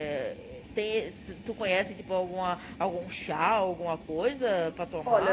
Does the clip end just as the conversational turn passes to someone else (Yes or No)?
Yes